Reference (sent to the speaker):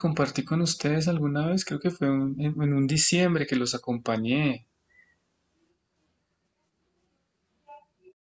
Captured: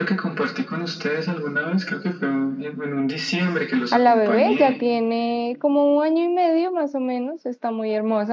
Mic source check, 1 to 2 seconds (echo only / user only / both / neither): echo only